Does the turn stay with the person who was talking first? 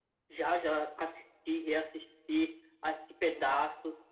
Yes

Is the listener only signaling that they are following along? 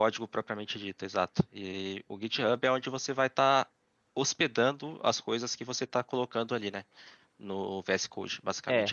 No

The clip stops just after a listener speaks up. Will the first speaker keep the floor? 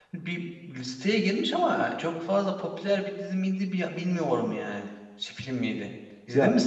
No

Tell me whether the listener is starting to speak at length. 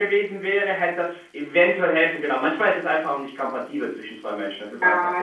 Yes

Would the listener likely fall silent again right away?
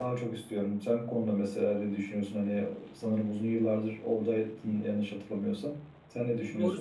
No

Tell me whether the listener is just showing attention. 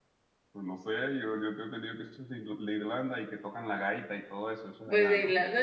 No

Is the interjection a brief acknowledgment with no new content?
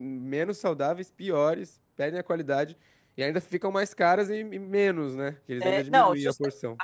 No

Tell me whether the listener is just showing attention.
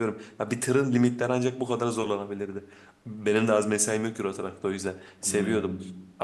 Yes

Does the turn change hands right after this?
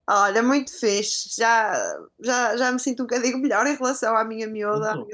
No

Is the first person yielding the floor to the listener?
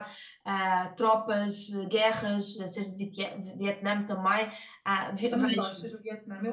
Yes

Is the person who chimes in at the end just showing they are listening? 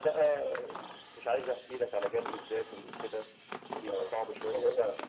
No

